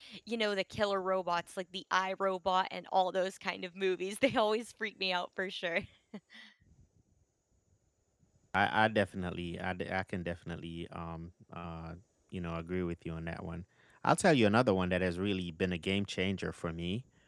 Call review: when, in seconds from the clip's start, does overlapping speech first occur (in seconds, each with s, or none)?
none